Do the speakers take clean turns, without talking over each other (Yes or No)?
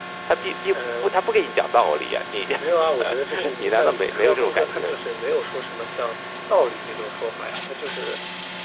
No